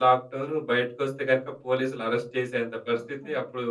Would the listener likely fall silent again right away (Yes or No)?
Yes